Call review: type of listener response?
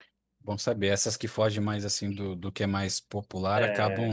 listening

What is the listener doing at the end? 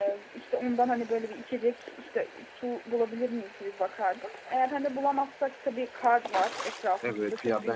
taking over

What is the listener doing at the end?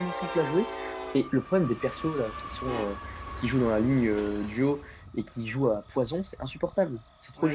taking over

